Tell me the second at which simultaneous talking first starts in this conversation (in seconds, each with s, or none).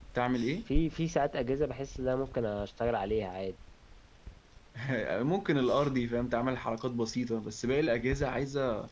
none